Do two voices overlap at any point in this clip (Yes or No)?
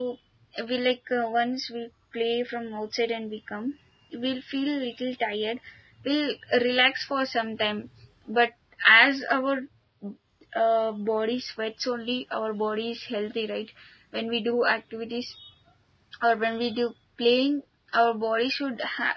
No